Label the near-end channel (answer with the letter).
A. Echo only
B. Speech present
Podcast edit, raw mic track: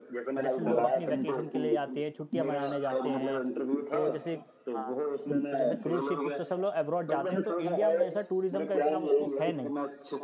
B